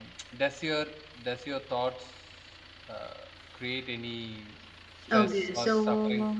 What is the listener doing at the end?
taking over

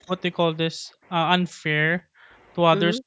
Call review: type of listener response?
listening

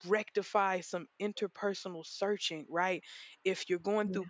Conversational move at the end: listening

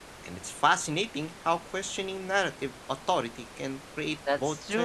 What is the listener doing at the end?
taking over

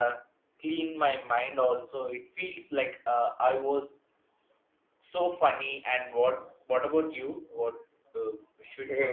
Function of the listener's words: taking over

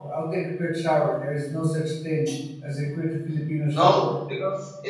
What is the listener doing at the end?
taking over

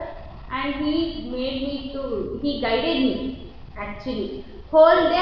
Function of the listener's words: listening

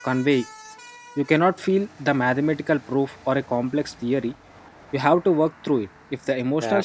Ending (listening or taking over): taking over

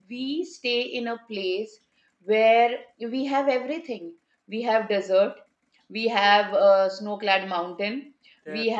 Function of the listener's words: listening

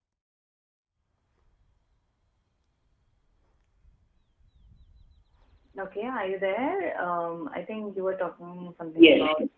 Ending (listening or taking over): taking over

